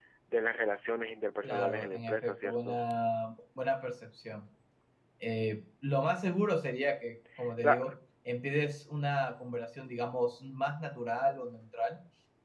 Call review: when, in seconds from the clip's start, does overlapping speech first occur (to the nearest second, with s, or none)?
1 s